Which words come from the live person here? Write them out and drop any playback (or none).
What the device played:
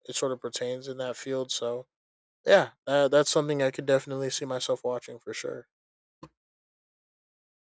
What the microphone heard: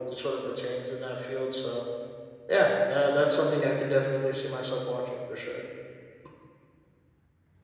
none